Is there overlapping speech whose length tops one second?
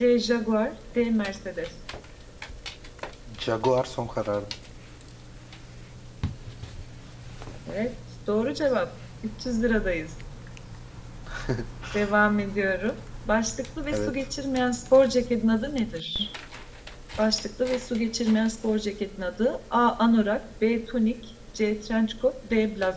No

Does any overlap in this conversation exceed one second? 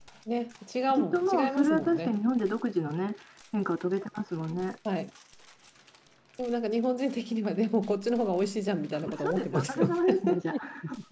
Yes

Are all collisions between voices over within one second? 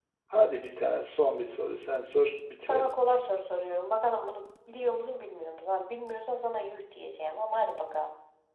Yes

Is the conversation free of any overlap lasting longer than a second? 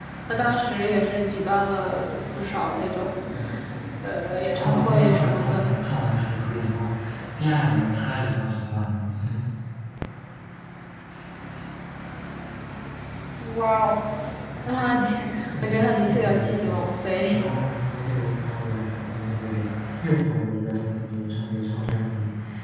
No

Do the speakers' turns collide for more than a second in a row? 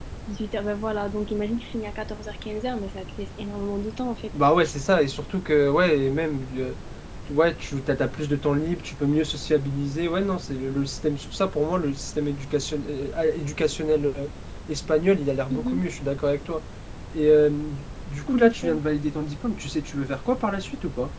No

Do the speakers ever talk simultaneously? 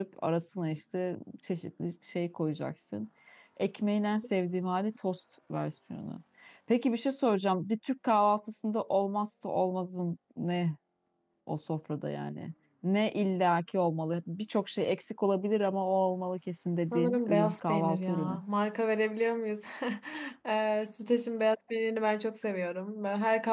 Yes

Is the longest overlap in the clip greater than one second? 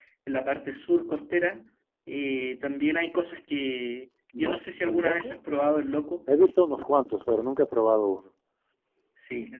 Yes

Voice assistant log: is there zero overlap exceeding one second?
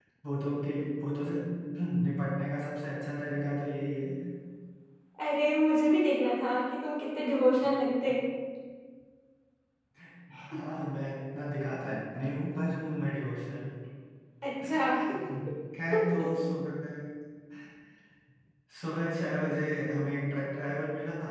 Yes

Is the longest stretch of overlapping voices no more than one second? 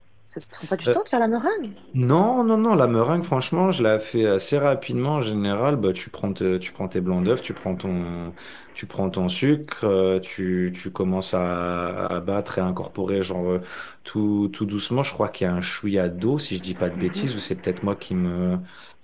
Yes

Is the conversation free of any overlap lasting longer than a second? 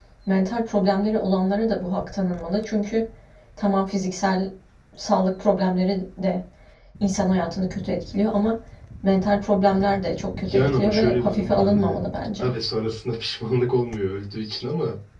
No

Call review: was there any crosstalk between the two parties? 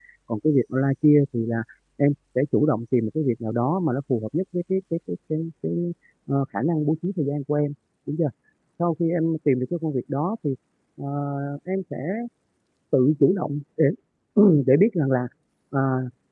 No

